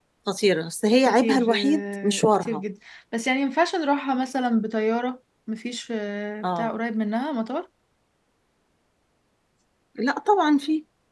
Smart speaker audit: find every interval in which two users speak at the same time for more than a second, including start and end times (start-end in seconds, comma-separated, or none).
1.1-2.6